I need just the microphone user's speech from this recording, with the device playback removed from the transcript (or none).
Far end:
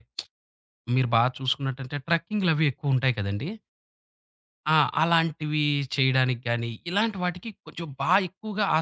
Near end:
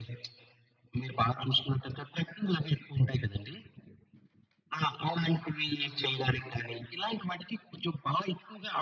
none